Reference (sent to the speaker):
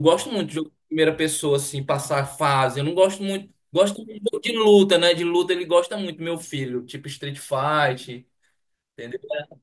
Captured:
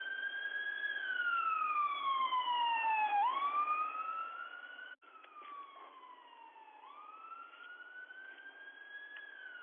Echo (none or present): none